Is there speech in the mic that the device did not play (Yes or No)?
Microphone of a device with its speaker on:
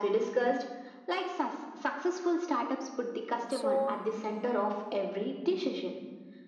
Yes